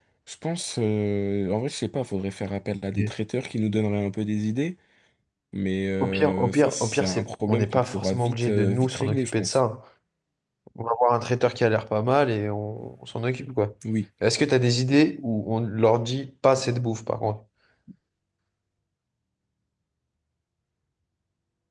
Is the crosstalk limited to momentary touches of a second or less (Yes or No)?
No